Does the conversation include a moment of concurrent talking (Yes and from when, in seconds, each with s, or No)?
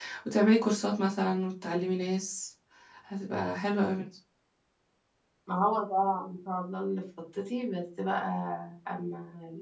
No